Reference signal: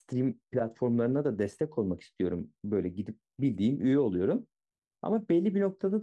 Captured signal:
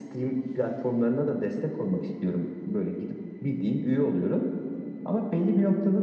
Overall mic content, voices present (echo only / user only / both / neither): echo only